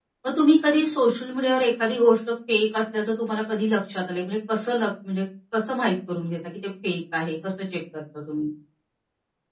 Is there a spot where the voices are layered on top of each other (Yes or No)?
No